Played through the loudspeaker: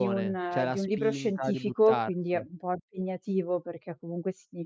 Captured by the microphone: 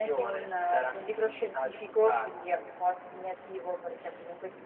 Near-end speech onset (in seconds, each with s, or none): none